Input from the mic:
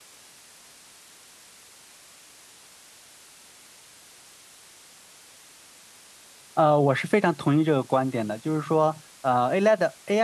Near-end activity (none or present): present